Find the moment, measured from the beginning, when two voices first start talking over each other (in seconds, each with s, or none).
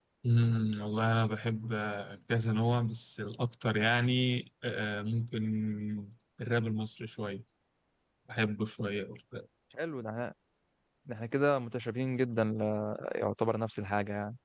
none